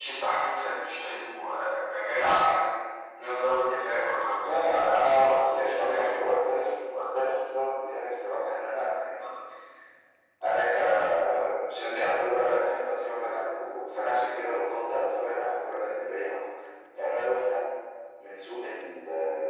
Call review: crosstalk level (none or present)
present